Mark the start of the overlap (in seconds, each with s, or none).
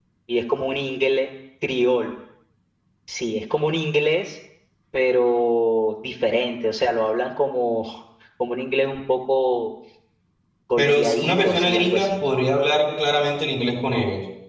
10.8 s